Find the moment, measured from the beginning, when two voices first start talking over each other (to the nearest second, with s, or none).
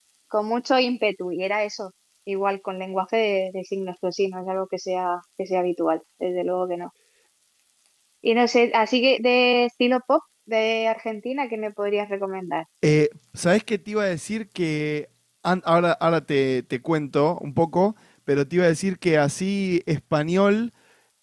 none